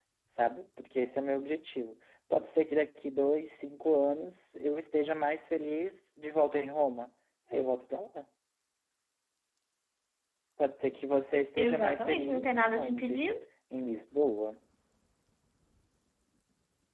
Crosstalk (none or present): present